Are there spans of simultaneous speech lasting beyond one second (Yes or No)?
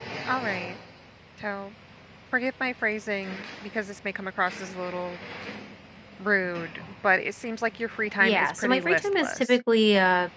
Yes